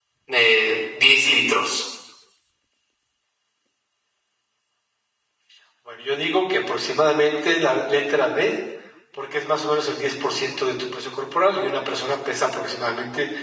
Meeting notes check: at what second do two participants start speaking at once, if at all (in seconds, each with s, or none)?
none